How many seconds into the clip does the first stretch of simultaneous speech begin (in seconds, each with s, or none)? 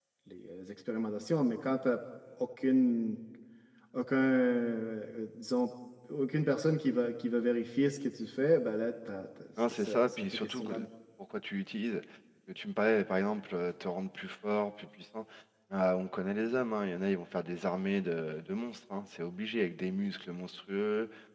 9.6 s